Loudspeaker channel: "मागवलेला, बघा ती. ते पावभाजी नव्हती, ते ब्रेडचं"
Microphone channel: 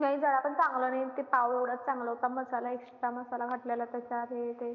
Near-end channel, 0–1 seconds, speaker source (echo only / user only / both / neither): user only